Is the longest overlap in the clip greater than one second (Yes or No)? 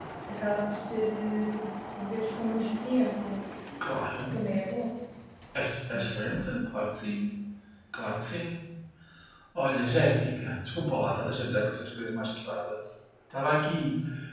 No